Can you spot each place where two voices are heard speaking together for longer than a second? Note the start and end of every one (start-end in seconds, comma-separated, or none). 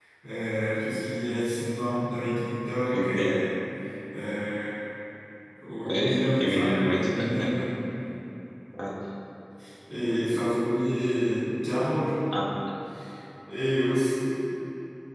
5.8-7.5